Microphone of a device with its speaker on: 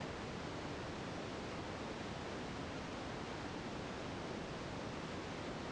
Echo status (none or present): none